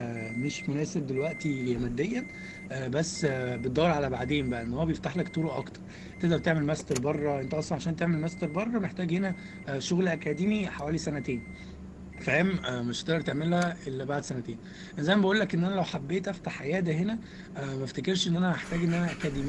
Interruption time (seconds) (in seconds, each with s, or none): none